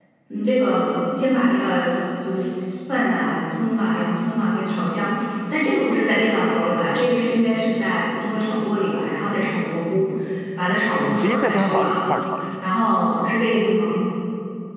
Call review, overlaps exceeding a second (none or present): present